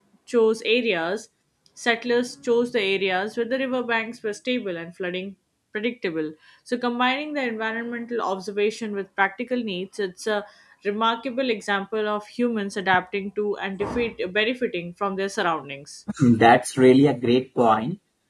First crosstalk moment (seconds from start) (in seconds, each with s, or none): none